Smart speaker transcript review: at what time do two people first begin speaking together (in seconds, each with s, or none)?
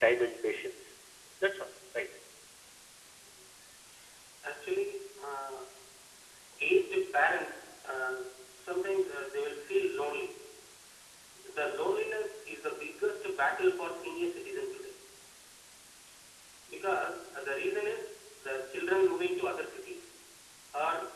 none